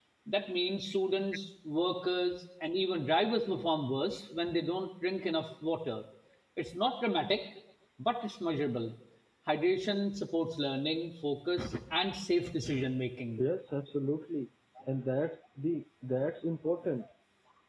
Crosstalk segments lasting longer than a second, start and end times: none

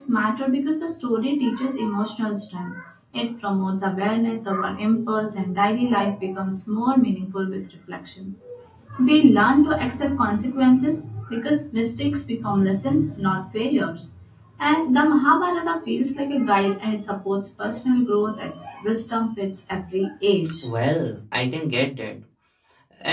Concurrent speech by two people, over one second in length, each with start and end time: none

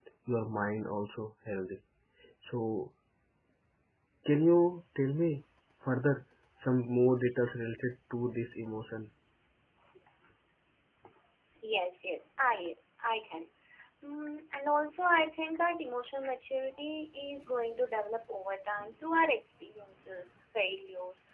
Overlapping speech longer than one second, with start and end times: none

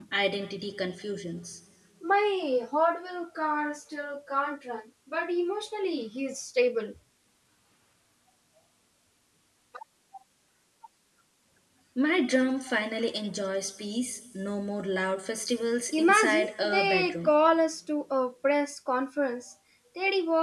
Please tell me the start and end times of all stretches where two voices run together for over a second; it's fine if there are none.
16.0-17.3

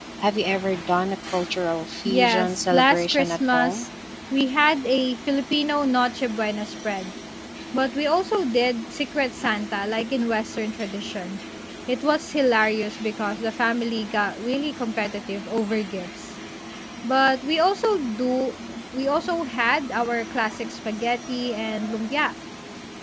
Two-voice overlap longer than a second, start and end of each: 2.0-3.8

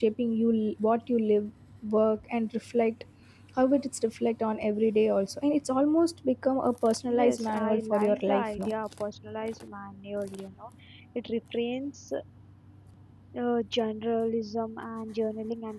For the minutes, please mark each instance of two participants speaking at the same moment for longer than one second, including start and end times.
7.1-8.7

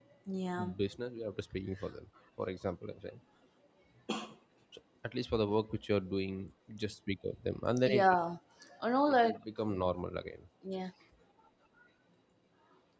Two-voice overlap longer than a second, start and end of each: none

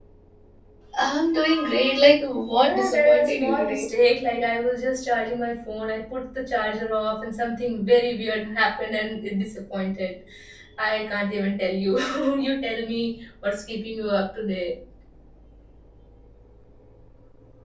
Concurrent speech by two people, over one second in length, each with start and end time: 2.5-3.9

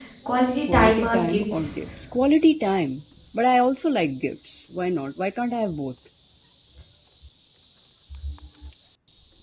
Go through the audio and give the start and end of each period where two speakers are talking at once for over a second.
0.6-1.9

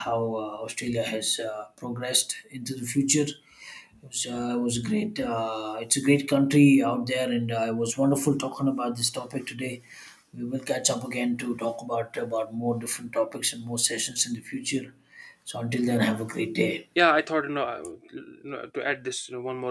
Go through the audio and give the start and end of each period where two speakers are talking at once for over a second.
none

